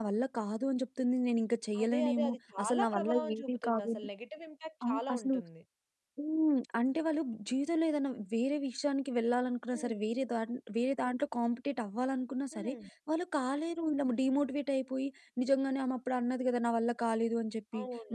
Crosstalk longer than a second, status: present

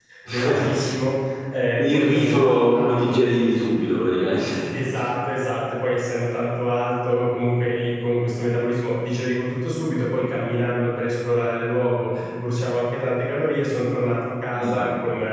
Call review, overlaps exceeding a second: present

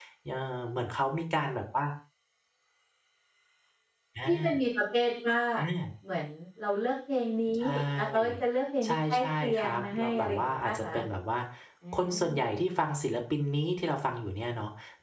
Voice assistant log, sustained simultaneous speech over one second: present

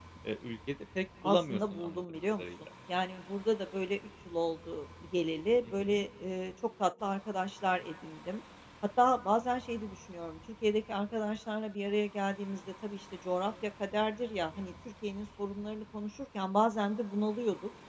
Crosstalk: present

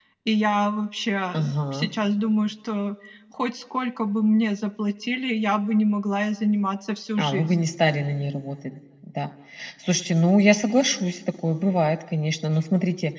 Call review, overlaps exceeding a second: none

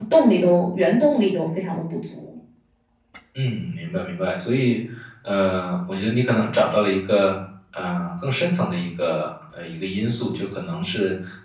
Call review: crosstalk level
none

